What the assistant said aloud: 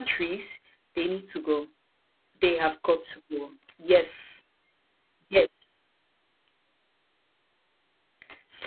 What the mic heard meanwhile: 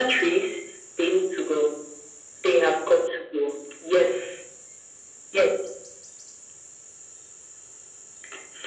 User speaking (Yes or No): No